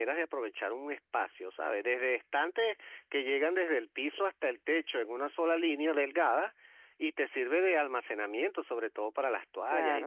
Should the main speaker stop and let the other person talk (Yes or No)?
Yes